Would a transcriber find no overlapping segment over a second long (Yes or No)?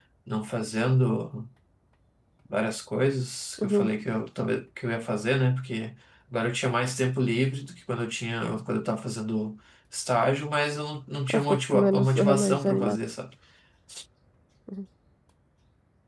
No